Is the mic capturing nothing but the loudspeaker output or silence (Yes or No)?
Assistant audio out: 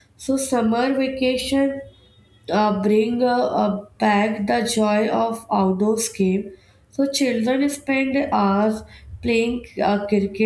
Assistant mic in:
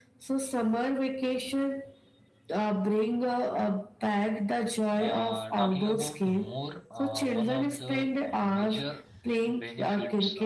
No